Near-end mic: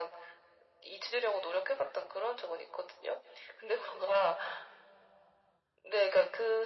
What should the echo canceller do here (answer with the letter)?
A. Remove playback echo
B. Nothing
A